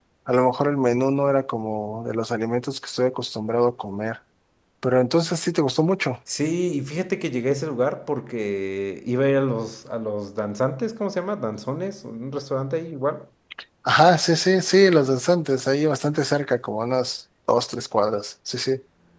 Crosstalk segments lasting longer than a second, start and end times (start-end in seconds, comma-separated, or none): none